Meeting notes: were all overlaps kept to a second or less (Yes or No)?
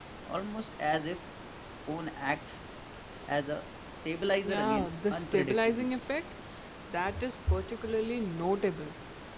No